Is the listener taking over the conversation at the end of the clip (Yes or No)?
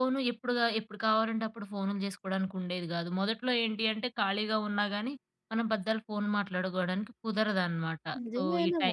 Yes